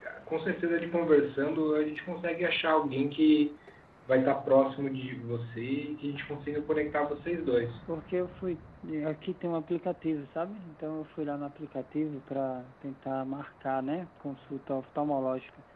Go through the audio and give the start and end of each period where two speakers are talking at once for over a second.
none

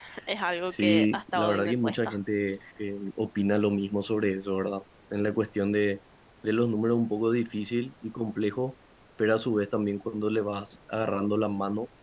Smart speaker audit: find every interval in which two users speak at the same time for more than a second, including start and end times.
0.7-2.1

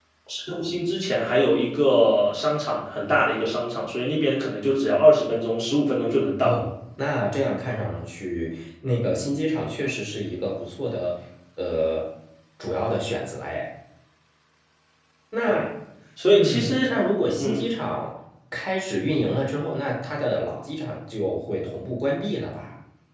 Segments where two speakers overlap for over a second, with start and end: none

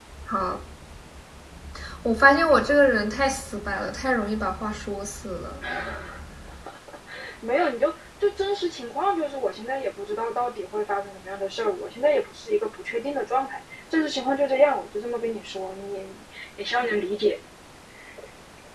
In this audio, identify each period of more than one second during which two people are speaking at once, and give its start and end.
none

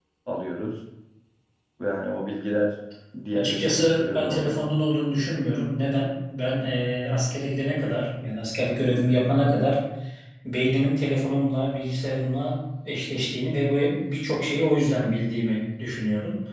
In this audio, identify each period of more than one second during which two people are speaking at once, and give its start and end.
3.3-4.6

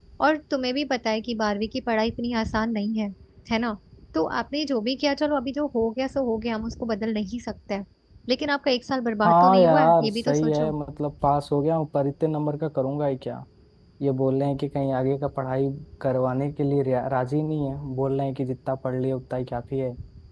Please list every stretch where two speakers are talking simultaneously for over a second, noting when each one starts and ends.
9.2-10.7

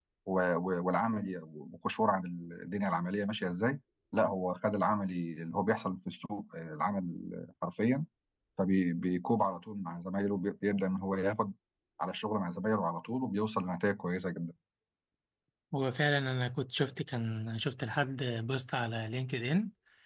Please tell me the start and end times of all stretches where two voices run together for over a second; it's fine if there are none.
none

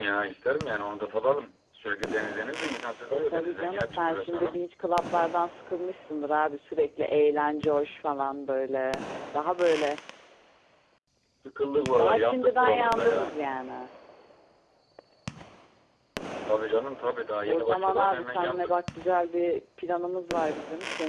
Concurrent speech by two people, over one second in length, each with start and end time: 3.1-4.6, 12.0-13.3, 17.5-18.8

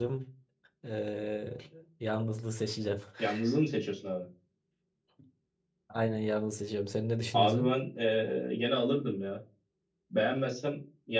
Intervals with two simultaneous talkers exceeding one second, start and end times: none

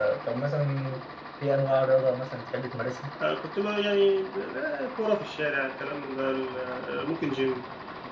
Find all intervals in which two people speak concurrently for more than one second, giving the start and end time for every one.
none

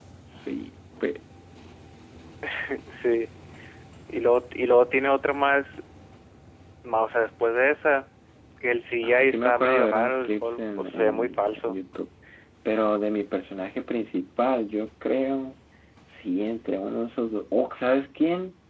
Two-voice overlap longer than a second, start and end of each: 9.0-11.7

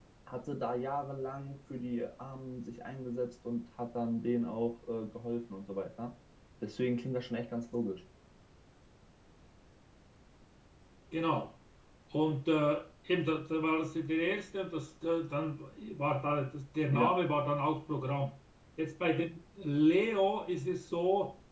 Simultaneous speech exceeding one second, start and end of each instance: none

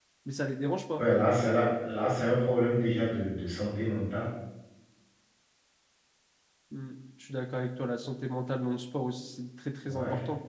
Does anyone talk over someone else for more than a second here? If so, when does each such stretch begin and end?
none

